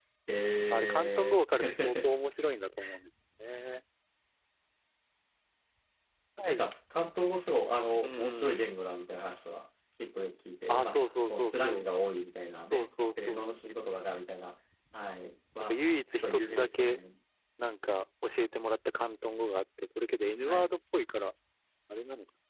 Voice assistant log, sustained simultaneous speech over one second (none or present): present